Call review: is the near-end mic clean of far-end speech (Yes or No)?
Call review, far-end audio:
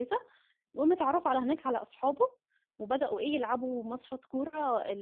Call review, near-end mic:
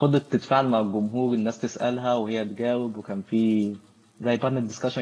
Yes